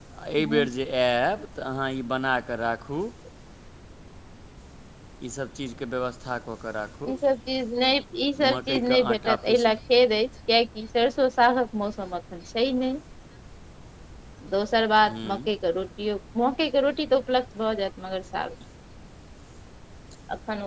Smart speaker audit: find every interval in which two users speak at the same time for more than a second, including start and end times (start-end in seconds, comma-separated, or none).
8.5-9.7